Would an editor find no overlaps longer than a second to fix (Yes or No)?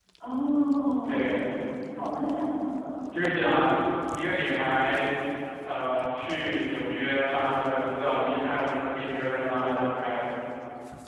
Yes